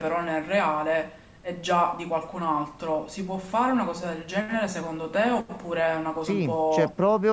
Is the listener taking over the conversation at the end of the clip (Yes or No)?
Yes